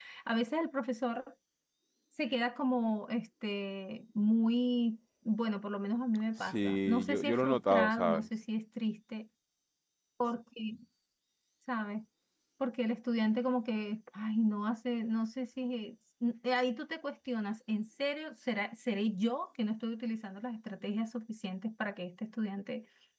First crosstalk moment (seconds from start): 6.4 s

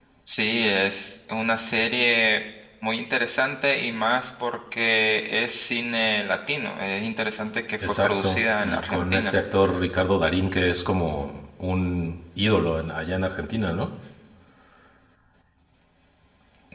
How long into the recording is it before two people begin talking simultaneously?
7.8 s

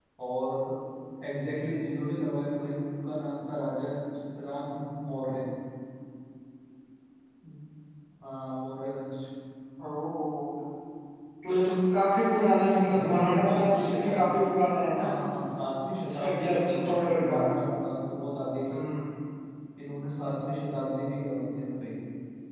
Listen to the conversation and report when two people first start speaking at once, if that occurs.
12.9 s

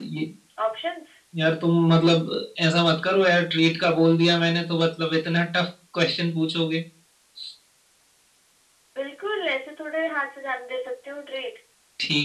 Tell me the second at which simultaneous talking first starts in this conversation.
none

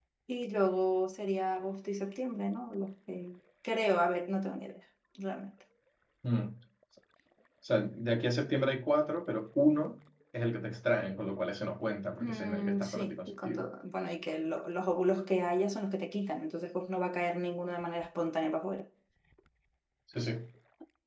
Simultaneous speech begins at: 12.2 s

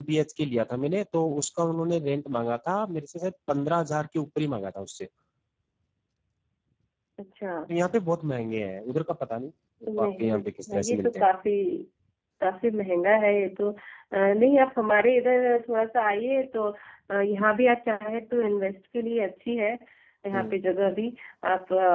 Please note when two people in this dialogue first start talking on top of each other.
9.9 s

